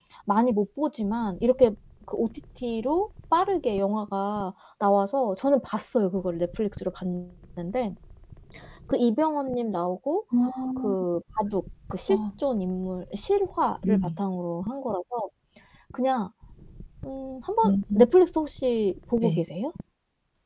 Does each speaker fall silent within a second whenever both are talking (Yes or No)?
Yes